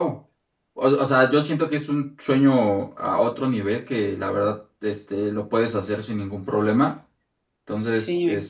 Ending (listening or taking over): listening